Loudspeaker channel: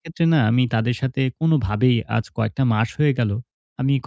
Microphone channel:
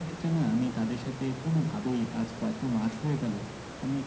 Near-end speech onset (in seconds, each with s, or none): none